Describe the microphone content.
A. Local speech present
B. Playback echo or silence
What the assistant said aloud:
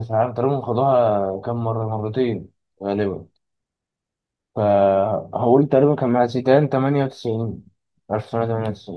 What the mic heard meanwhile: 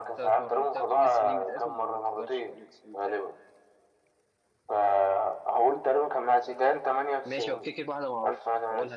A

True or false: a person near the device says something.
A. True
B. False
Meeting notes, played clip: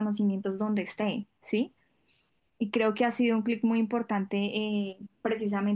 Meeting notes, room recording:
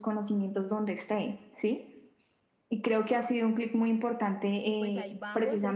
A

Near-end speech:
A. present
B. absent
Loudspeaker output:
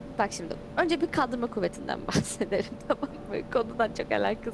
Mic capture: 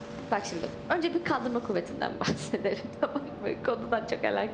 B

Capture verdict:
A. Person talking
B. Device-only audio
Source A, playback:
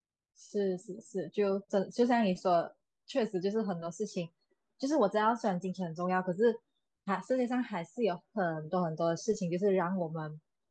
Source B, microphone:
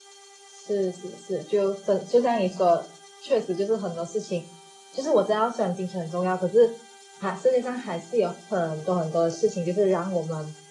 B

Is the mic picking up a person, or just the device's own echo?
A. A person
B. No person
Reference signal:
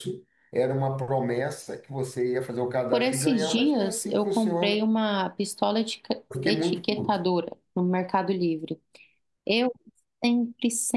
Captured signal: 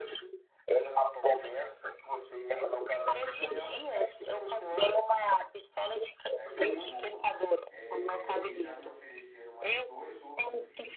A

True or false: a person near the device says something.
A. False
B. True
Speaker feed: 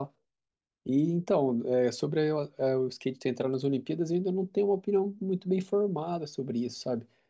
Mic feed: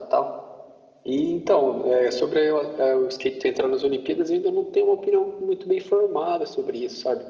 A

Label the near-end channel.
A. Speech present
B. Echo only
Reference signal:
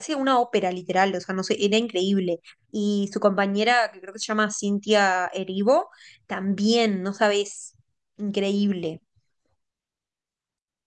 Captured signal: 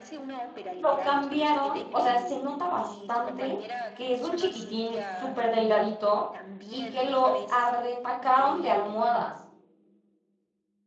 A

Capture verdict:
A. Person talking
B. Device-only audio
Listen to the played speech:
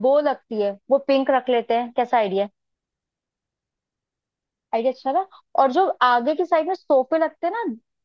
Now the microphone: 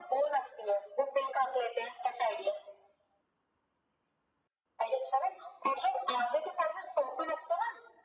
B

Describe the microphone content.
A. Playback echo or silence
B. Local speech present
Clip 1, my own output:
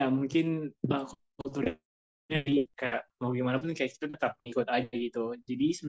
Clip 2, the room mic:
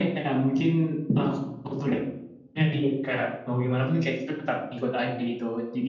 A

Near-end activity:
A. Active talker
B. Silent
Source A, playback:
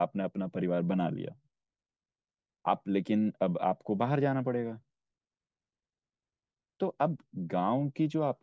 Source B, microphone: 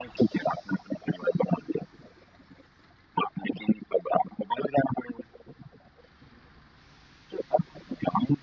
B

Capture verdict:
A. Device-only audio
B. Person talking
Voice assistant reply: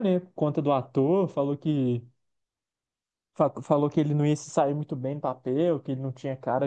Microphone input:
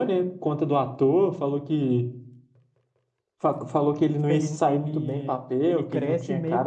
B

